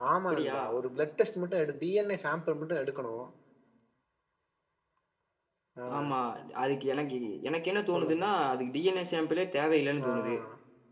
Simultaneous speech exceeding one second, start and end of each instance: none

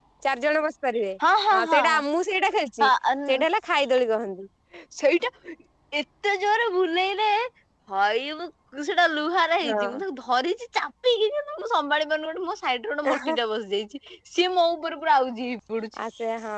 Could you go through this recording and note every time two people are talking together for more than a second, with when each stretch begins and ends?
none

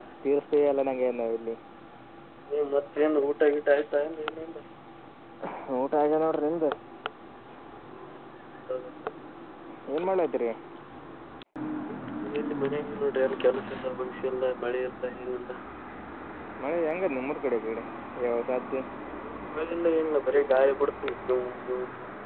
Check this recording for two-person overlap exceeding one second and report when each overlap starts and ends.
none

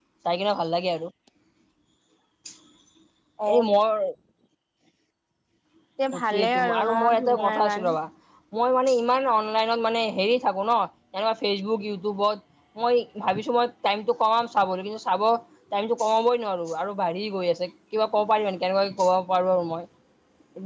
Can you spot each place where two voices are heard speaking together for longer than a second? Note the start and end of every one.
6.2-7.9

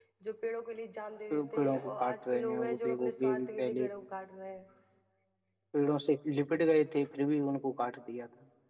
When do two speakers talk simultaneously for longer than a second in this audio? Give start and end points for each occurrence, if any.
1.3-3.9

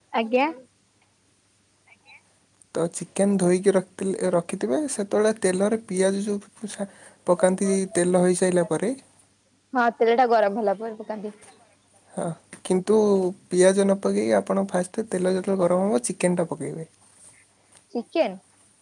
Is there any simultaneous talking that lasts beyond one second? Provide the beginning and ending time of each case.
none

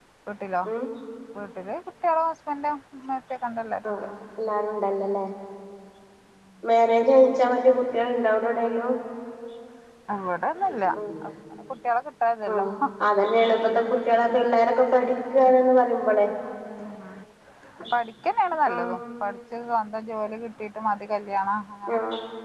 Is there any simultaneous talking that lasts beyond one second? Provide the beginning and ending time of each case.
none

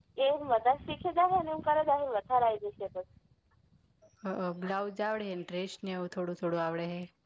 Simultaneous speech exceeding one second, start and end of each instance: none

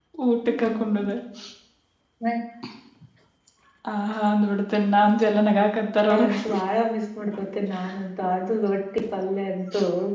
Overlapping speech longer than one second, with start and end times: none

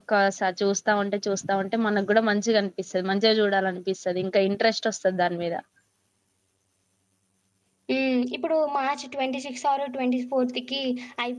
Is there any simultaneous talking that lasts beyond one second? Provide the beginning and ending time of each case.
none

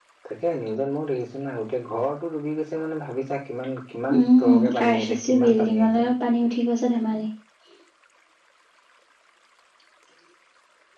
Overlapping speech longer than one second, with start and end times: 4.2-6.1

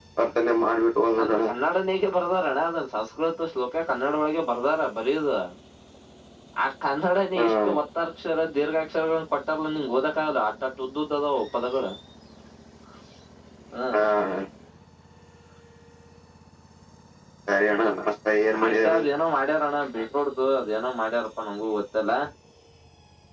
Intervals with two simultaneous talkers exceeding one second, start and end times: none

